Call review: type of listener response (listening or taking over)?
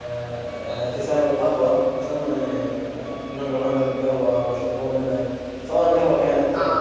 listening